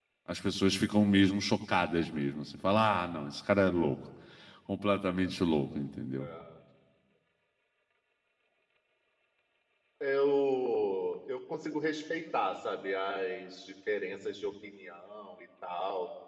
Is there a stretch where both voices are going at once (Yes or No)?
No